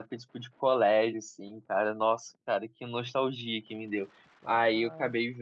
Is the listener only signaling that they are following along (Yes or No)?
Yes